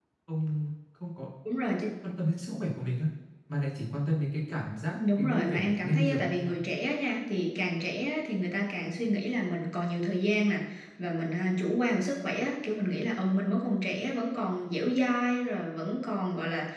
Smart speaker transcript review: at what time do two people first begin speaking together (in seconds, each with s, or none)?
4.9 s